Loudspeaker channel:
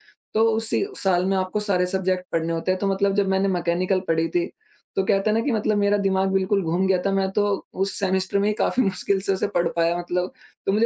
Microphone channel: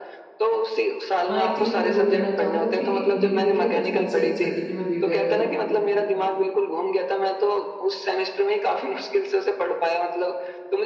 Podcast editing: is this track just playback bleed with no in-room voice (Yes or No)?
No